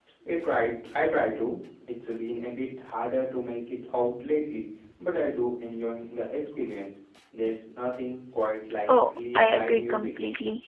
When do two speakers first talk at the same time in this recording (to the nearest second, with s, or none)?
9 s